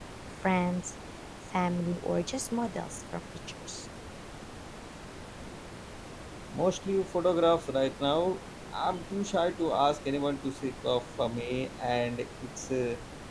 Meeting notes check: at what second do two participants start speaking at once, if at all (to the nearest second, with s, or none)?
none